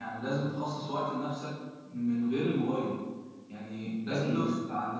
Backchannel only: Yes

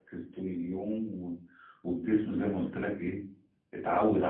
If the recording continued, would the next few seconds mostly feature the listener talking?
Yes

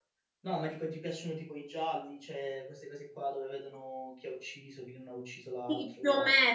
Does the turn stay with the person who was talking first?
No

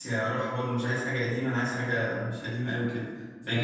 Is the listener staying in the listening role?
Yes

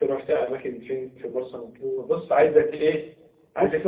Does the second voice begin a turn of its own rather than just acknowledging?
No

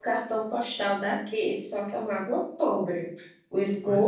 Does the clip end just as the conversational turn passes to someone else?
No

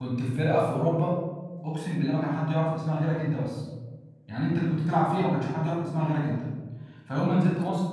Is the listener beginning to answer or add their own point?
No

